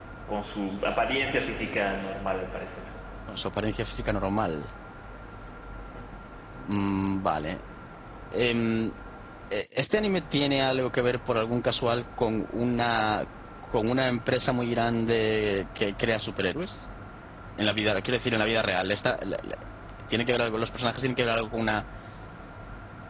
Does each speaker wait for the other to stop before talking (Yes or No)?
Yes